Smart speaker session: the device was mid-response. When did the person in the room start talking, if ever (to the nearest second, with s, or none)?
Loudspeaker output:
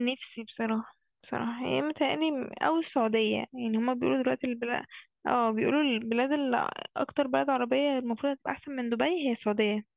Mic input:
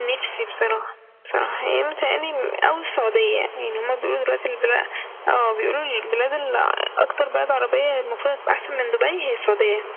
none